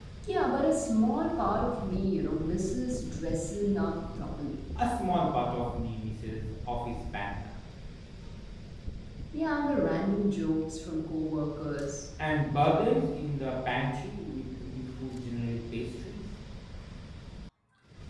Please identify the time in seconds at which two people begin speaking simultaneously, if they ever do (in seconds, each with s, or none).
none